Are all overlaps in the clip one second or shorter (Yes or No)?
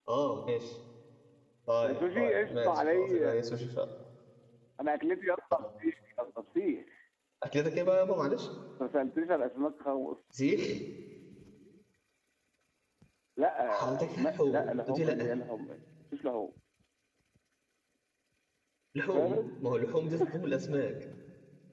No